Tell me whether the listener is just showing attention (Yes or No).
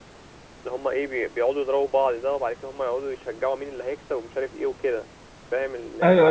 No